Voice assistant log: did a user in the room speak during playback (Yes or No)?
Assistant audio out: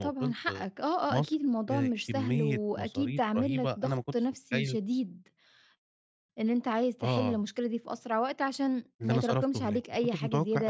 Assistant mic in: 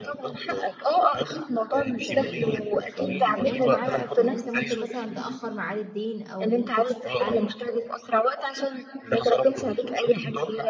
Yes